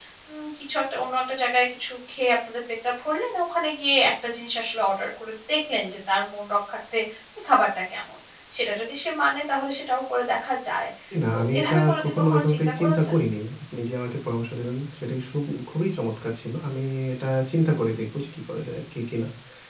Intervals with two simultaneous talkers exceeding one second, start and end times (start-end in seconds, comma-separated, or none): 11.3-13.1